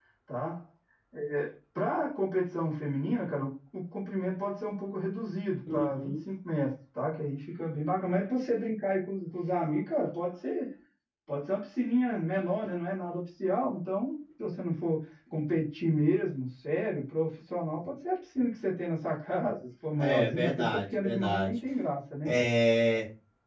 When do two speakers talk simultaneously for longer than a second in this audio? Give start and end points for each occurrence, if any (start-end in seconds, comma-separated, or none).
20.0-21.6